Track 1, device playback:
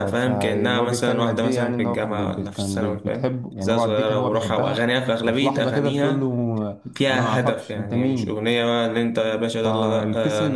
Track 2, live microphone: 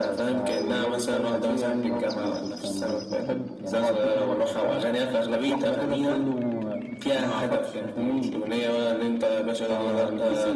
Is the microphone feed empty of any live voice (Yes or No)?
Yes